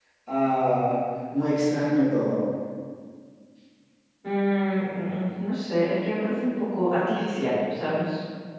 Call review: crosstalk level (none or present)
none